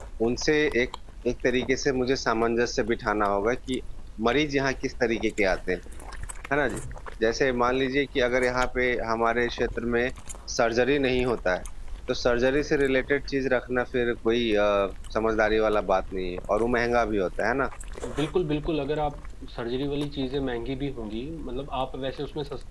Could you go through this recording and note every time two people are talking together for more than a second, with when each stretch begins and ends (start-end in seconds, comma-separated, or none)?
none